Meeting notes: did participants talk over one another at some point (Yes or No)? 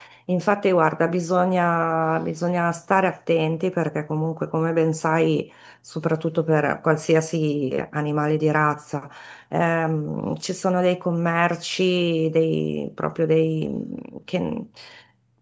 No